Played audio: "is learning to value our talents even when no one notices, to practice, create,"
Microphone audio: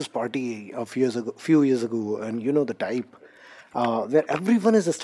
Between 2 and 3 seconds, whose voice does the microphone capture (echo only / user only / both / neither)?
user only